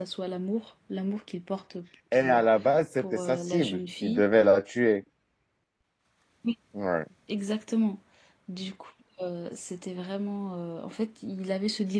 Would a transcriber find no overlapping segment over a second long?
No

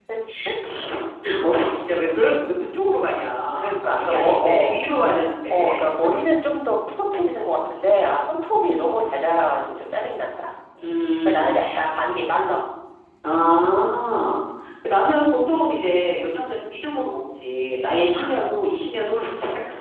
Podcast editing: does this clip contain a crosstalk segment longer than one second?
Yes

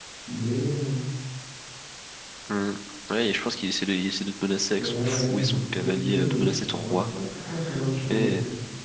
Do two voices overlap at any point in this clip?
Yes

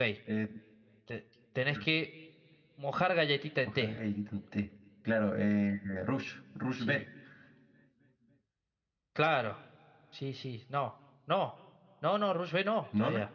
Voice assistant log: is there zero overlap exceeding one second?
Yes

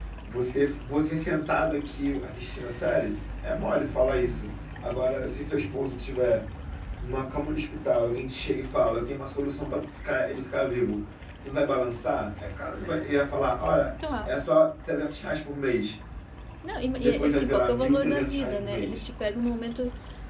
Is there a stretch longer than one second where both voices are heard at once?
Yes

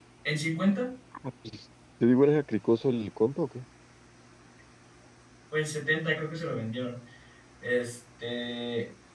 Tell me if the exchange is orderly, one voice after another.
Yes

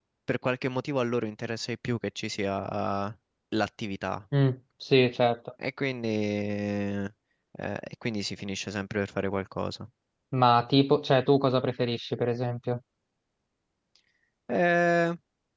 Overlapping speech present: No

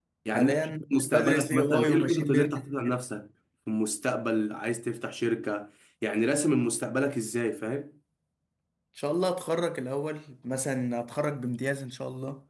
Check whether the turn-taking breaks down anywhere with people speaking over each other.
Yes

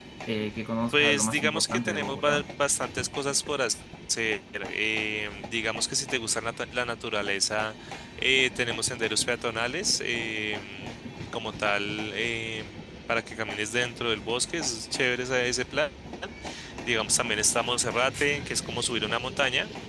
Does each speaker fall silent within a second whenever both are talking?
No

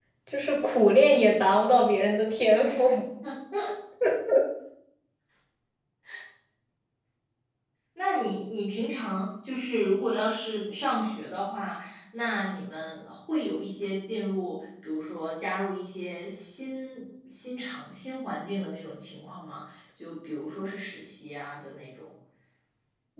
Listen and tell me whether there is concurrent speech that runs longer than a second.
No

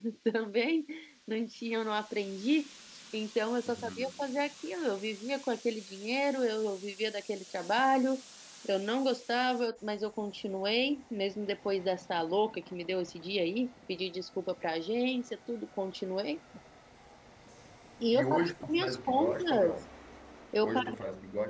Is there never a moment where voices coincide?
No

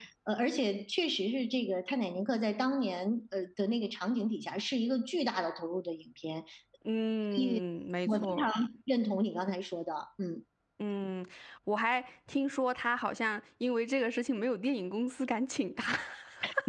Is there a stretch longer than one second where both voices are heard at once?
No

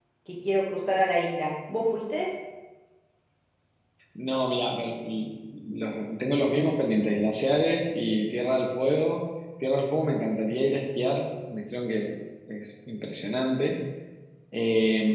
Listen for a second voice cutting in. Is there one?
No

